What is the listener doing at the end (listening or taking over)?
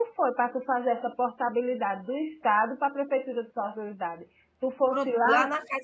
taking over